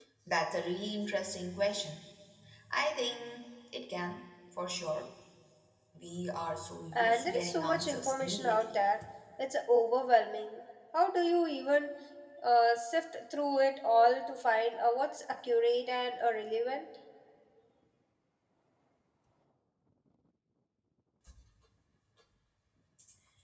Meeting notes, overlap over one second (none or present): present